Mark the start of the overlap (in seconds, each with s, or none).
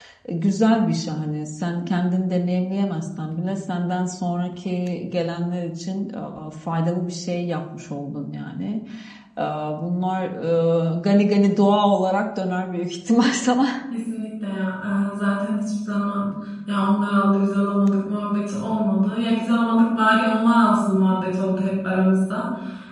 none